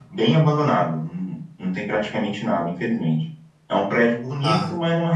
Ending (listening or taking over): listening